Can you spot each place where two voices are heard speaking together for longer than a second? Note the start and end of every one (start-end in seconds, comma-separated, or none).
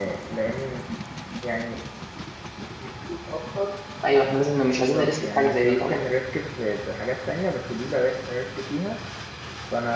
4.8-6.0